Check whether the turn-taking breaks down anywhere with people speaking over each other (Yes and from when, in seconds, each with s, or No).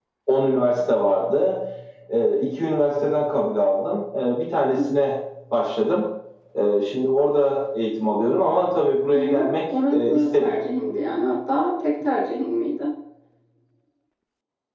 Yes, from 9.1 s